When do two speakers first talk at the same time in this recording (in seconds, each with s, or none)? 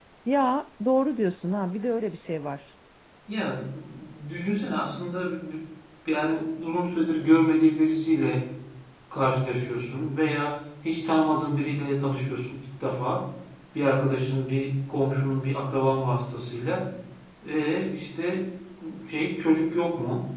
none